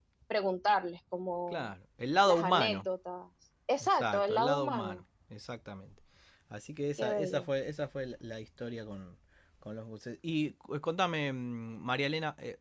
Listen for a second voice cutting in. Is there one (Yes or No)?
Yes